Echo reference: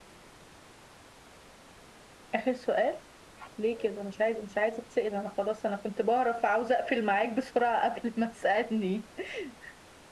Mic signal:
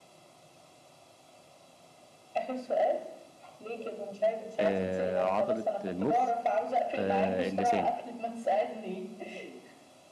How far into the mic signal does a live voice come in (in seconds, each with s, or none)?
4.6 s